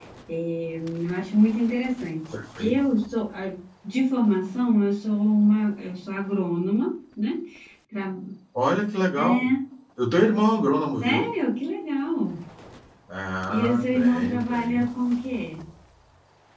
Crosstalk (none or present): present